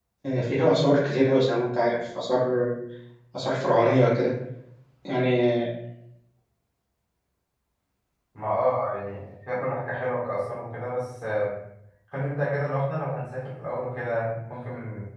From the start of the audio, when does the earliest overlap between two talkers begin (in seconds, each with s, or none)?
none